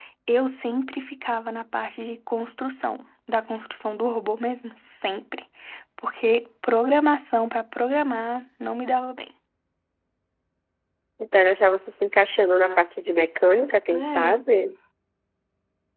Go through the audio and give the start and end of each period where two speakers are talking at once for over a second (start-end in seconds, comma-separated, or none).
none